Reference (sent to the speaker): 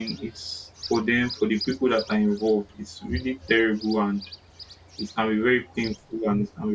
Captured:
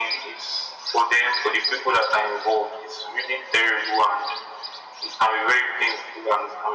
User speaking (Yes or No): No